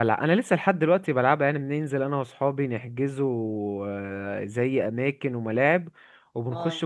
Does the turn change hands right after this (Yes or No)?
No